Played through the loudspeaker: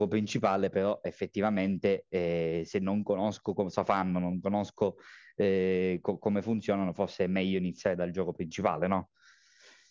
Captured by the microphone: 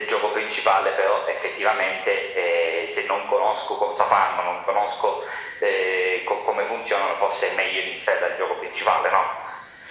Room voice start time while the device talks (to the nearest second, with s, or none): none